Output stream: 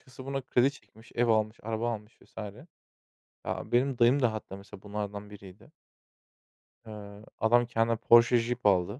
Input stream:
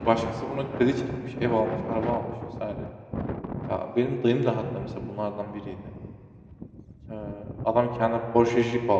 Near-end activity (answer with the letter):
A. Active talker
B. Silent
B